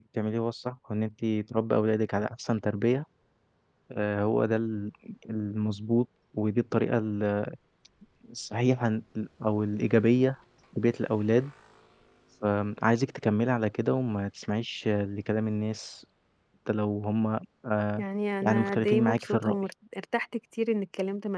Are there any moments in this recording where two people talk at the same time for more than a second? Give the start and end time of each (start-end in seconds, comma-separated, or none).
18.4-19.6